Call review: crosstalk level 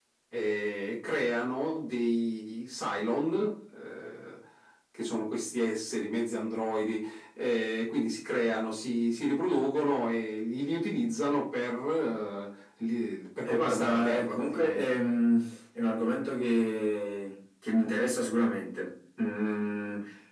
present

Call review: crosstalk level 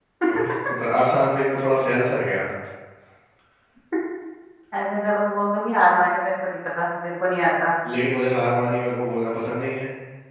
none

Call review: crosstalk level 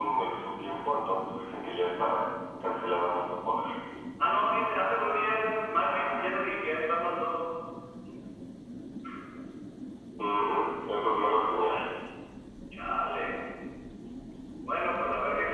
none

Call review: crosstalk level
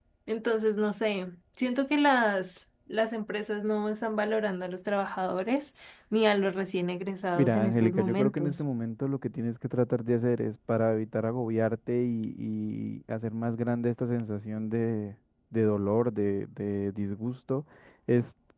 present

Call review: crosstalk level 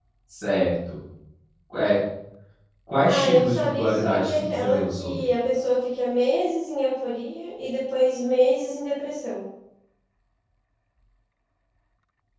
present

